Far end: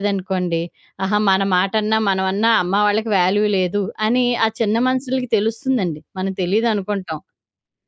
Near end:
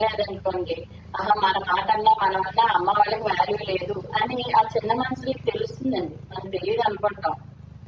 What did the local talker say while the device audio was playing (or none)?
none